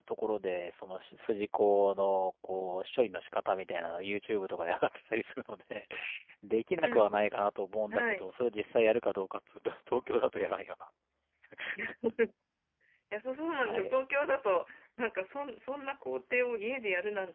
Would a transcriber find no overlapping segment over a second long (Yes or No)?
Yes